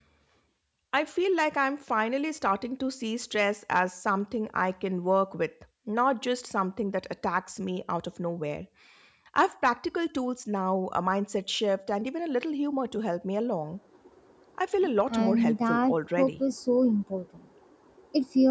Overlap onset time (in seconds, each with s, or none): 15.1 s